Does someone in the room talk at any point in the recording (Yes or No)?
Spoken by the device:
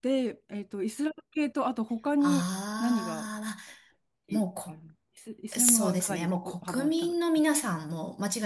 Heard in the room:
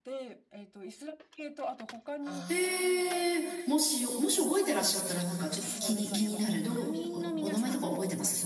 Yes